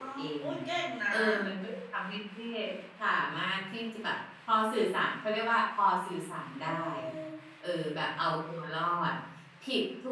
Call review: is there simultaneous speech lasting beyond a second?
No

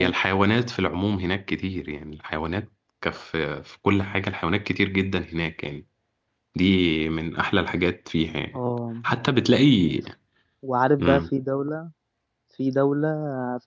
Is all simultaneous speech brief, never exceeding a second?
Yes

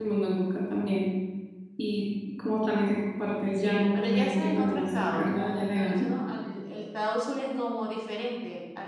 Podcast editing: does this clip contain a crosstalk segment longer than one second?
Yes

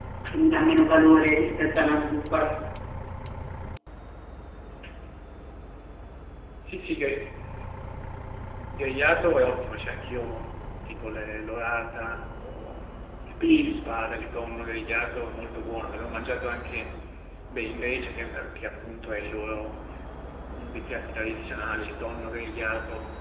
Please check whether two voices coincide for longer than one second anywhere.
No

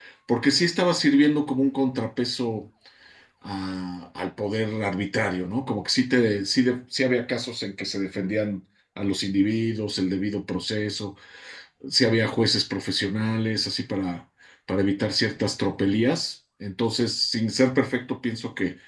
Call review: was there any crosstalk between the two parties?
No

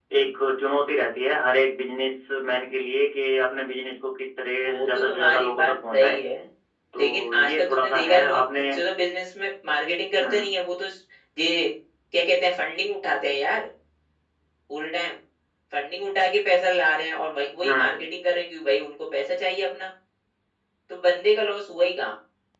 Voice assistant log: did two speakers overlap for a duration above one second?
Yes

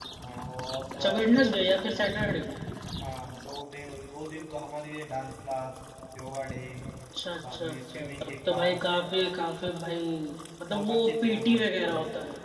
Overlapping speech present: Yes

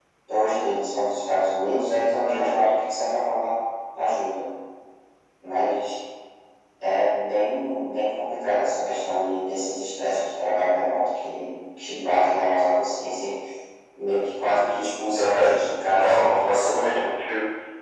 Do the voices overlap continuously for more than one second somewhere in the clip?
Yes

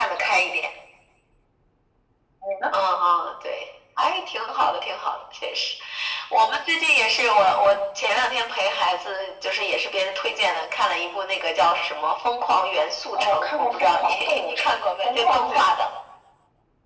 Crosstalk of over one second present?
Yes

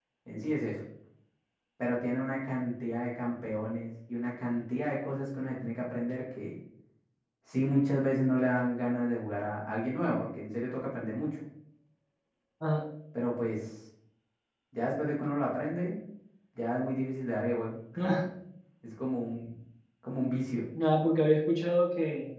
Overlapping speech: No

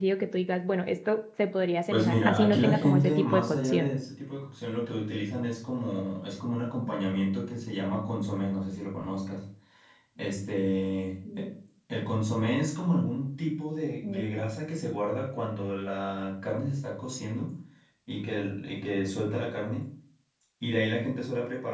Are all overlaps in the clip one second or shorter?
No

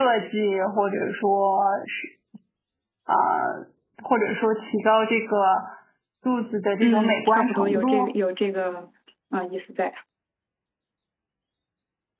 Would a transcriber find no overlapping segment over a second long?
No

